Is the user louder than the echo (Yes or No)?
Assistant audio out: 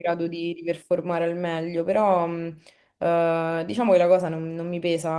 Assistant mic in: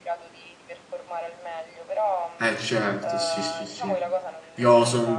Yes